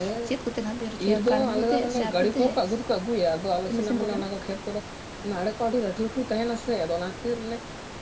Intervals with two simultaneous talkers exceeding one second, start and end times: 1.1-2.7

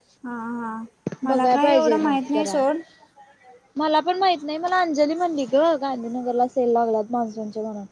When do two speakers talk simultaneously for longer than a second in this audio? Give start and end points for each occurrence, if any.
1.3-2.6

